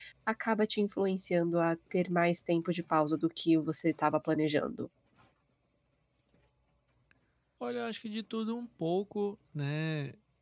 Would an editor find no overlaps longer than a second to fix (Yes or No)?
Yes